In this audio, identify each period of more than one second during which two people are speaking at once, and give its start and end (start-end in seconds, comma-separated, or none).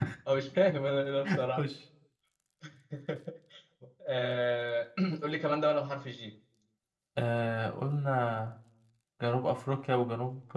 none